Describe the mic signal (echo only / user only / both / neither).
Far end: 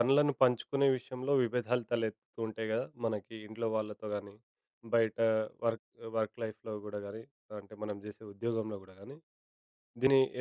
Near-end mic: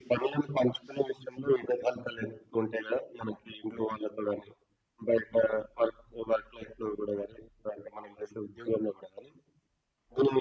echo only